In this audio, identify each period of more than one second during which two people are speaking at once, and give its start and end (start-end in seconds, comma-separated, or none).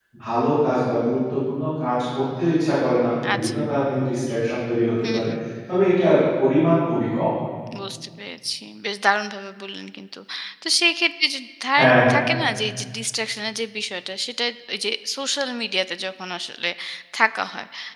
none